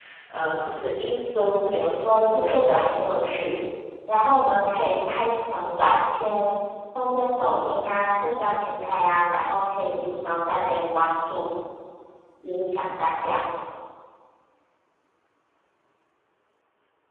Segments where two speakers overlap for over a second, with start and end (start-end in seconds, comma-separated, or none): 1.5-2.9